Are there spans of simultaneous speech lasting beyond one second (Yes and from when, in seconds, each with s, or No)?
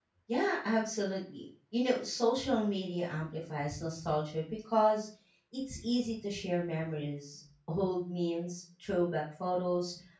No